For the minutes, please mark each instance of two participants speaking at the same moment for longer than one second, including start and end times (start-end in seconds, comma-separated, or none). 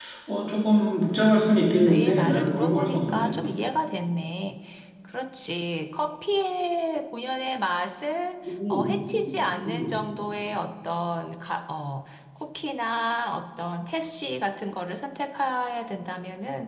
1.9-3.3